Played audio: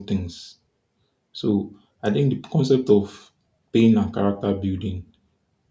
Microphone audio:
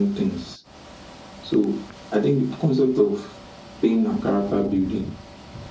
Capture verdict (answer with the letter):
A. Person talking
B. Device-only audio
B